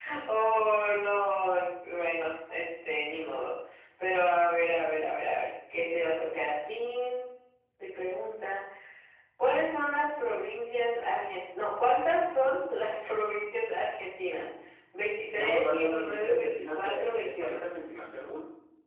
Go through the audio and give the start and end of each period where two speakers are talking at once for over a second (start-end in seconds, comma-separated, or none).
15.4-17.6